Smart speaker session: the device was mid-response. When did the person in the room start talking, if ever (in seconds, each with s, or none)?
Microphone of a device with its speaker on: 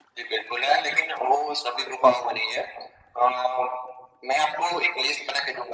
none